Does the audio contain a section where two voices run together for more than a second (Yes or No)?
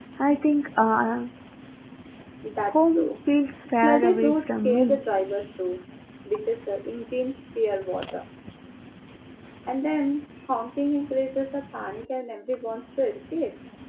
Yes